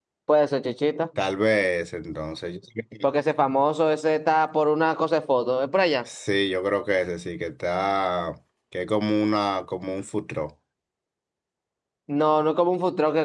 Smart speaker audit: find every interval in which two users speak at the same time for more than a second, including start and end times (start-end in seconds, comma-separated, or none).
none